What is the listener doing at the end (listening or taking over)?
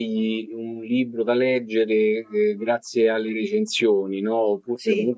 listening